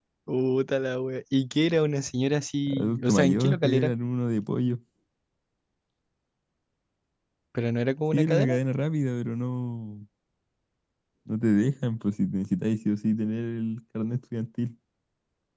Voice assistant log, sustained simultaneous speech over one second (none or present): present